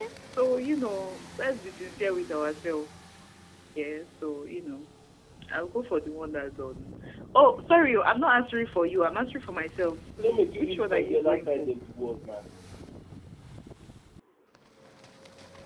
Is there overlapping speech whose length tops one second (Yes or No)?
Yes